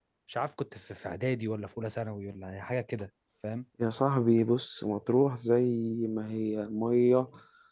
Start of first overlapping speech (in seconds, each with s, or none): none